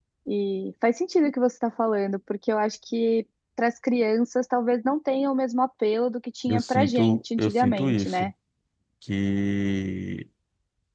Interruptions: present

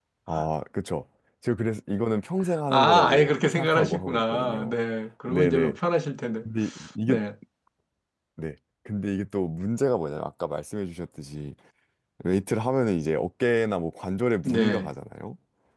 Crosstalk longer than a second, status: present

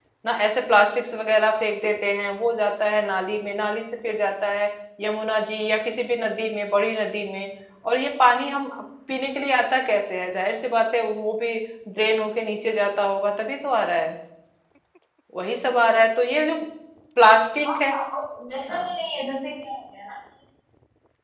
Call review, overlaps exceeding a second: none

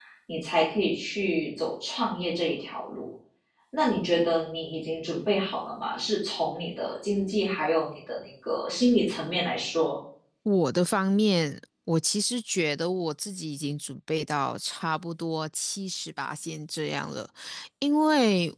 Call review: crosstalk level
none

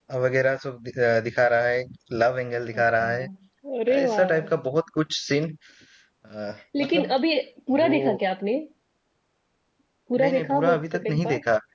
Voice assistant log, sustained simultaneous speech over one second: present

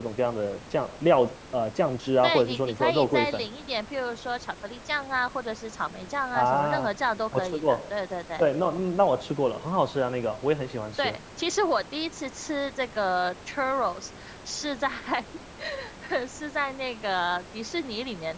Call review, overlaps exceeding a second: present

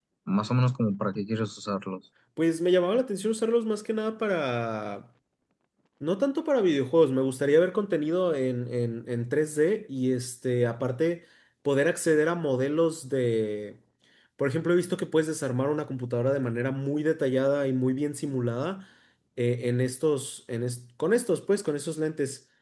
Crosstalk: none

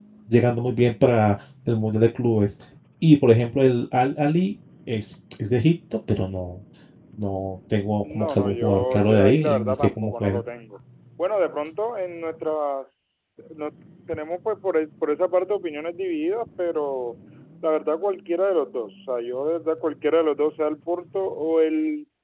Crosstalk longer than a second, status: present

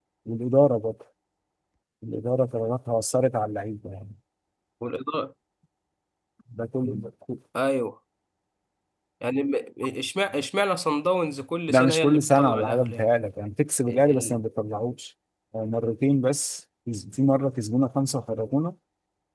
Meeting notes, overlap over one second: present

